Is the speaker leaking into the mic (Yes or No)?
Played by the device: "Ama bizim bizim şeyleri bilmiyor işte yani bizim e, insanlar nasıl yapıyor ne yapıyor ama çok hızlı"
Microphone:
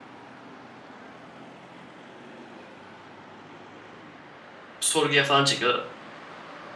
No